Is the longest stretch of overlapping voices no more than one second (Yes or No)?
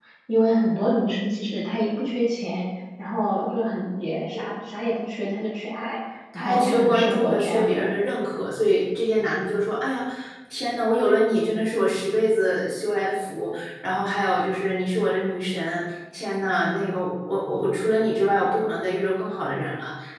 No